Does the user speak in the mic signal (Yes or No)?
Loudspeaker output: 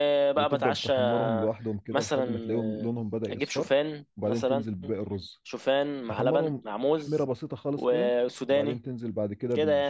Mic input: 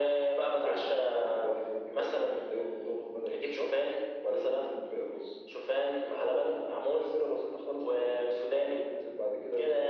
No